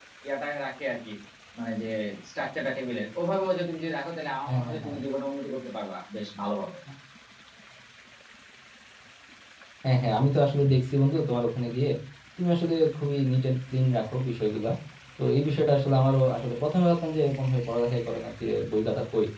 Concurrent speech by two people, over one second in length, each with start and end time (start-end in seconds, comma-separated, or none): none